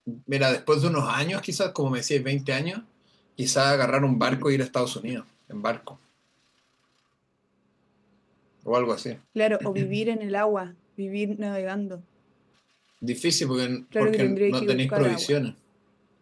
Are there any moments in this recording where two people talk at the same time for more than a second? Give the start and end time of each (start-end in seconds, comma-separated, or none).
14.0-15.3